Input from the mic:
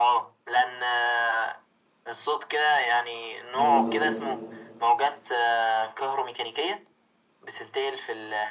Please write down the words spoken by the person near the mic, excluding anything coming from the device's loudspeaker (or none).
يلا بينا انت